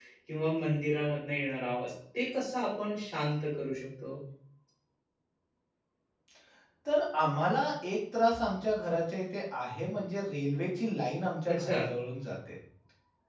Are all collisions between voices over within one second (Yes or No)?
Yes